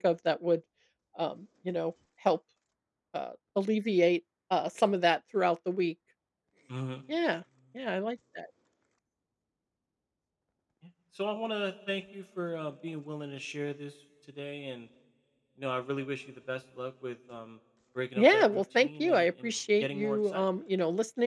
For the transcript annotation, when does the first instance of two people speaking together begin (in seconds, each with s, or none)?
18.2 s